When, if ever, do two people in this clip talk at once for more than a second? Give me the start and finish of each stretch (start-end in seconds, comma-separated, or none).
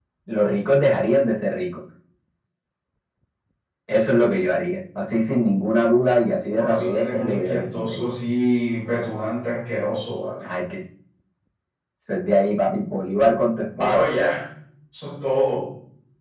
6.5-8.1